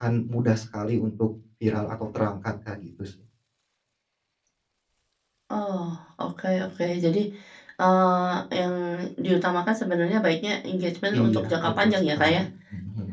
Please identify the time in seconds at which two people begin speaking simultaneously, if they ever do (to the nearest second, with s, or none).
11 s